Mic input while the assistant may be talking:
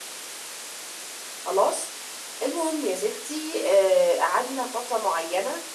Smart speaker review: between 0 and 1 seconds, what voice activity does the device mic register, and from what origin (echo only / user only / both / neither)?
neither